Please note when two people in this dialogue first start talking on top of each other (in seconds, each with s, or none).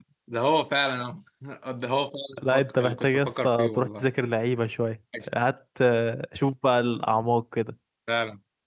2.4 s